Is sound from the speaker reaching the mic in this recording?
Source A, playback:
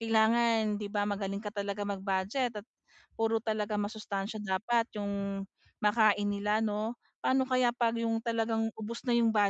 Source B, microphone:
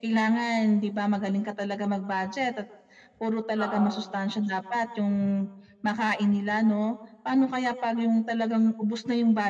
Yes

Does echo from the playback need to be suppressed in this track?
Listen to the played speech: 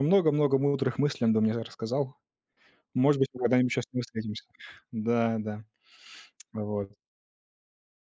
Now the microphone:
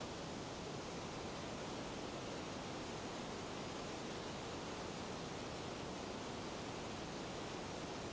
No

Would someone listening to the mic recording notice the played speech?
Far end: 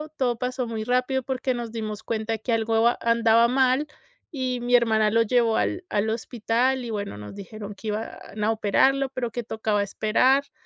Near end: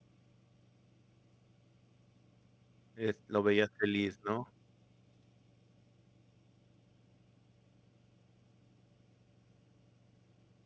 No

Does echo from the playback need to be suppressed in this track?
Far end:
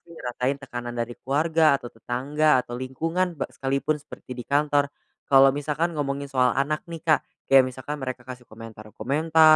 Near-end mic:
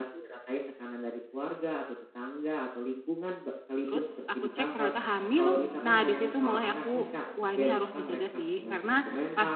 Yes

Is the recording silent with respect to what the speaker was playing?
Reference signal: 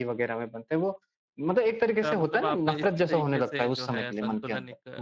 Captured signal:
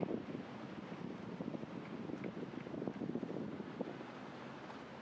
Yes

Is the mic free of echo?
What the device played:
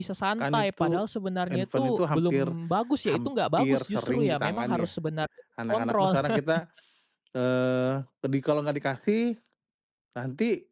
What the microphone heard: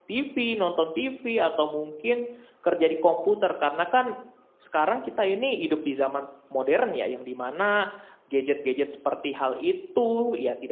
Yes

